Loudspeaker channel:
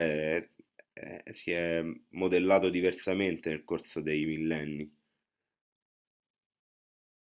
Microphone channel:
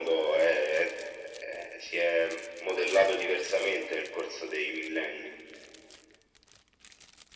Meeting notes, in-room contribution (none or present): none